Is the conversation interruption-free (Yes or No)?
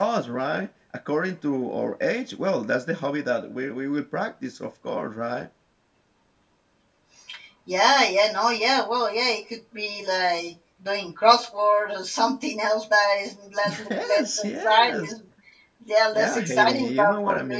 No